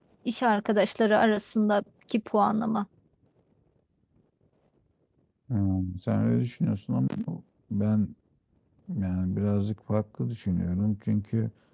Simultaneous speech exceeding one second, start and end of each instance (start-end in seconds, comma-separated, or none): none